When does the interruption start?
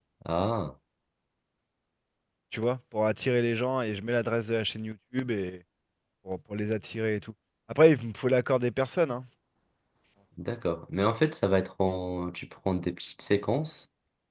none

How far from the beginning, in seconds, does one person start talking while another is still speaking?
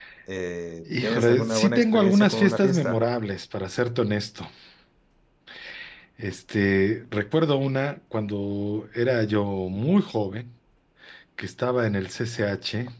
1.0 s

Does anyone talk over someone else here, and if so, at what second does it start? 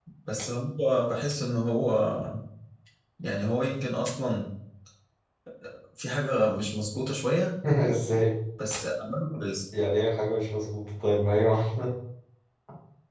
none

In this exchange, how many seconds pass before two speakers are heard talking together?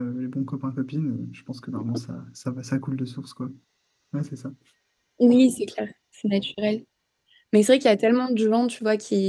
none

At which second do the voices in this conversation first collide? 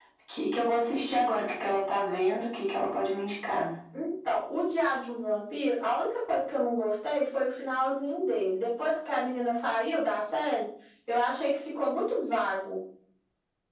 none

